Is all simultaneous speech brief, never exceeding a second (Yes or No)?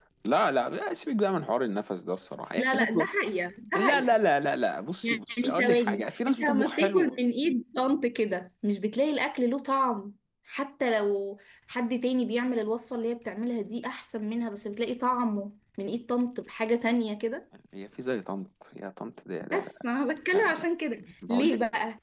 No